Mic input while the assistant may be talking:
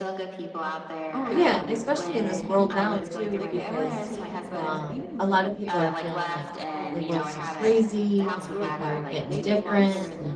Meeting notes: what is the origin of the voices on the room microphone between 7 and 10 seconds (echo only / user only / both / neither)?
both